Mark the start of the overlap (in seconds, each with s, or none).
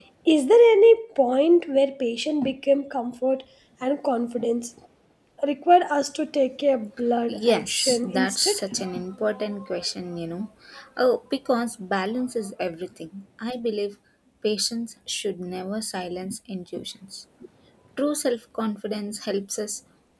7.3 s